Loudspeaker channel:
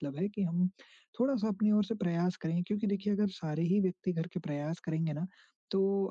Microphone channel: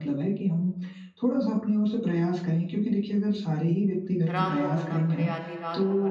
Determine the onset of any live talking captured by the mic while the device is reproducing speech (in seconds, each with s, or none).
4.3 s